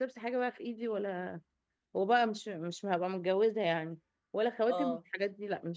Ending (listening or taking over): listening